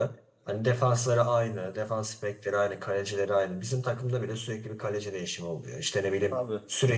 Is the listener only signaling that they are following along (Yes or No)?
Yes